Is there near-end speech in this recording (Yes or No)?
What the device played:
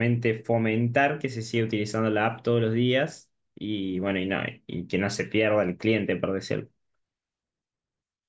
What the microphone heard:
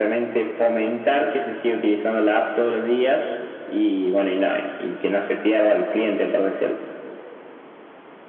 No